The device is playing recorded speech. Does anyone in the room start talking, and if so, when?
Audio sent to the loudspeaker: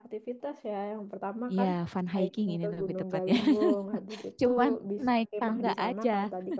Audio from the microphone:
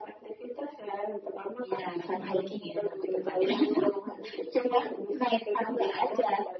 2.1 s

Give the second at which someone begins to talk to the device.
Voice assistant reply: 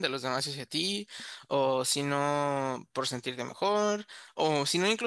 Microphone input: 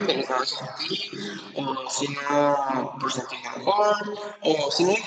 none

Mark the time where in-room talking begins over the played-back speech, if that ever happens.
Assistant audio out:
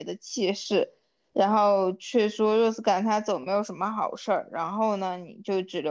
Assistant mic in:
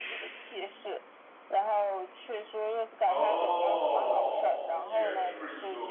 3.1 s

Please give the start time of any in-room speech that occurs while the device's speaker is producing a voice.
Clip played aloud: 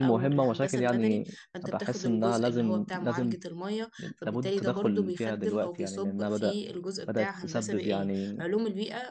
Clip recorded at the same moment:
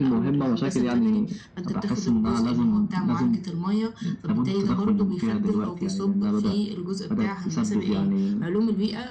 none

